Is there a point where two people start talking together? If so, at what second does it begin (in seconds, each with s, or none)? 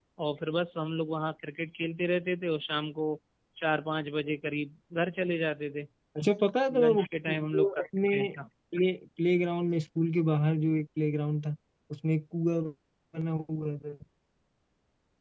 6.8 s